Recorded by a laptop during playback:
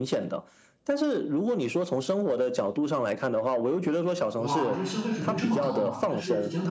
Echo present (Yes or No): Yes